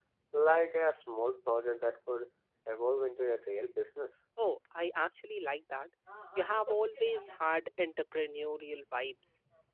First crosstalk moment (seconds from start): none

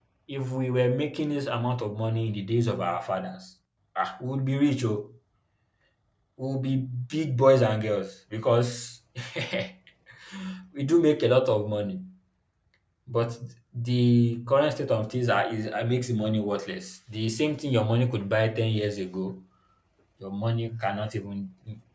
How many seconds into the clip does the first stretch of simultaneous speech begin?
none

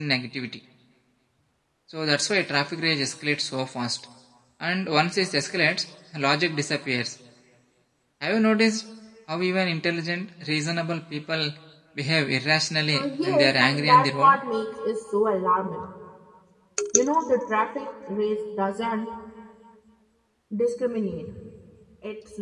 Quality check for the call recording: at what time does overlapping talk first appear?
12.9 s

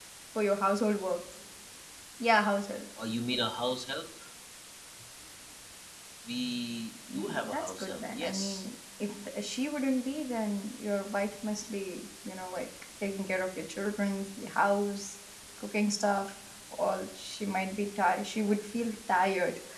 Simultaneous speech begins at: 7.1 s

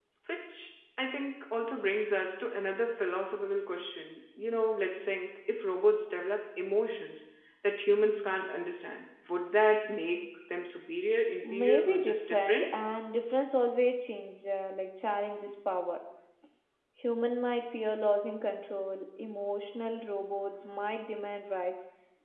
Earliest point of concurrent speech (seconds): 11.4 s

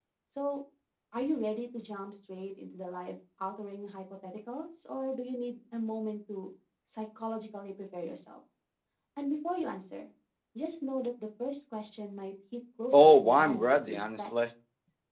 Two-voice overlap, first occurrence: 12.9 s

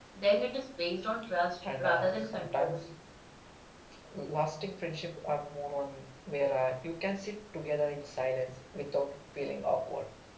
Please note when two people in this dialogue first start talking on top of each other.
1.6 s

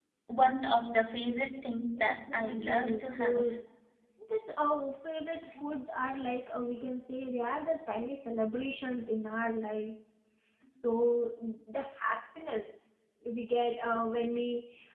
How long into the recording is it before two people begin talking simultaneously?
2.0 s

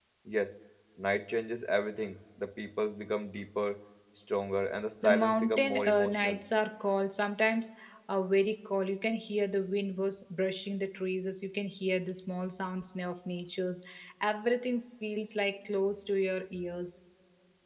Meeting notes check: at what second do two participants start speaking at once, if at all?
5.0 s

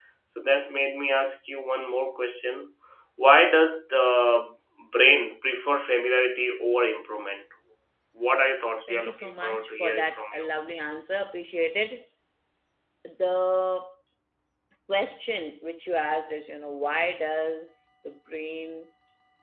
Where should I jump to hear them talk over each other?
8.9 s

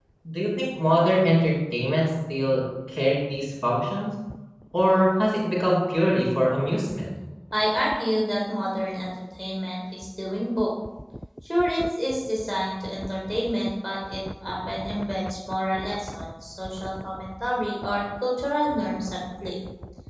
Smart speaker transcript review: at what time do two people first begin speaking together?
none

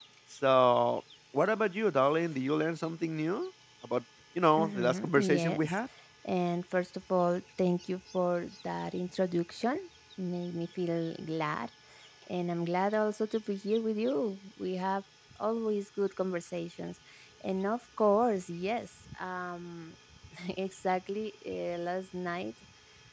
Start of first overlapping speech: 4.6 s

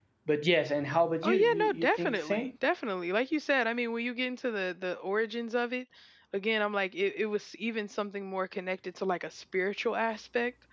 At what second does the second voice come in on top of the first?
1.2 s

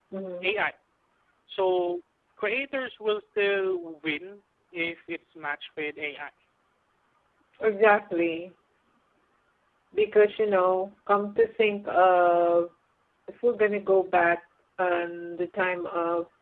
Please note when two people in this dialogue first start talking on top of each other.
none

